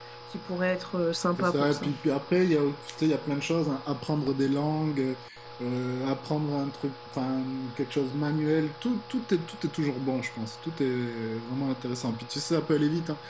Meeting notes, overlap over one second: none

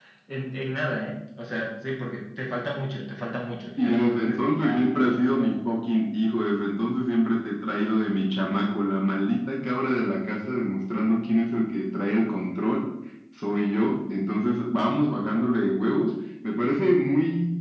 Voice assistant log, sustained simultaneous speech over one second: present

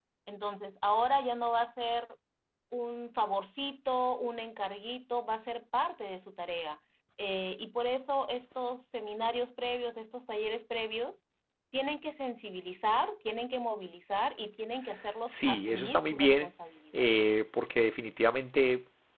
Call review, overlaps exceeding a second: present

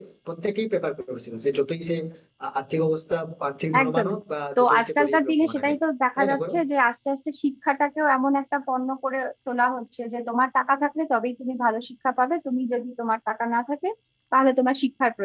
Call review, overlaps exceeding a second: present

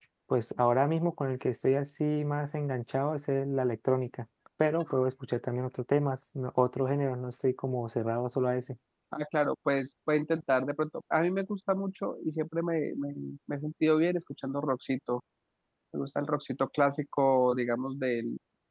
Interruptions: none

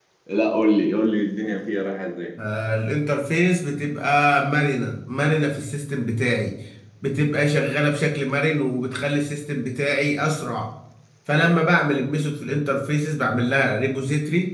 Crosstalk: none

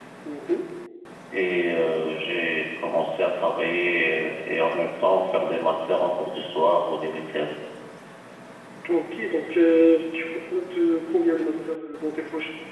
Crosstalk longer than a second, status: none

